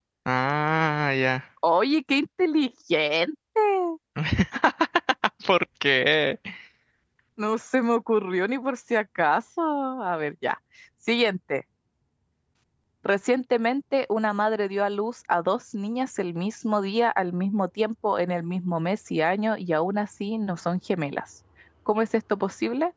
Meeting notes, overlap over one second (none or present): none